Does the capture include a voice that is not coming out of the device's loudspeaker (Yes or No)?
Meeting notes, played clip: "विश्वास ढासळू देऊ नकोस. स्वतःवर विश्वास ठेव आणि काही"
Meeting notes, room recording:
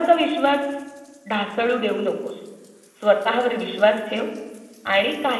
No